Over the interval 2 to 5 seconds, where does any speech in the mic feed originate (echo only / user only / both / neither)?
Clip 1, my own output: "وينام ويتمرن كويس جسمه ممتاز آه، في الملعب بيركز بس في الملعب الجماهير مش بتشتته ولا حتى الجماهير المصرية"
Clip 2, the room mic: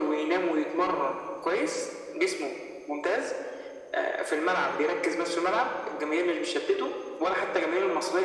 echo only